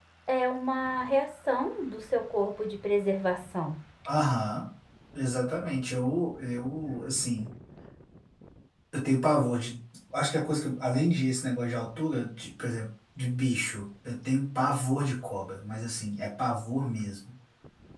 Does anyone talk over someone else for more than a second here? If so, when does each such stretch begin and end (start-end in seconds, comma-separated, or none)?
none